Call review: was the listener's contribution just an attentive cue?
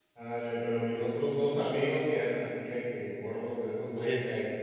Yes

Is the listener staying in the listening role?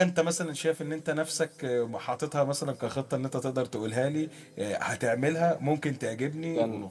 No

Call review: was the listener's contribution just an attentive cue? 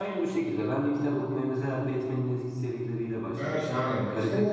No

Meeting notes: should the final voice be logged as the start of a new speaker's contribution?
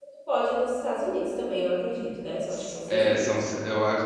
Yes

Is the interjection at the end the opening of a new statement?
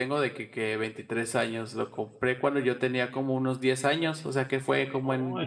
No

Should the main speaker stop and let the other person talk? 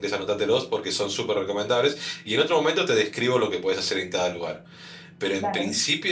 No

